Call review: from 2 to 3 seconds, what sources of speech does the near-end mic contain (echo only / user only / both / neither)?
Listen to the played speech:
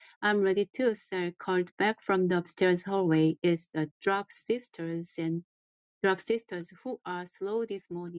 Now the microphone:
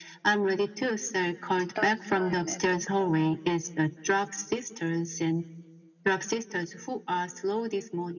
both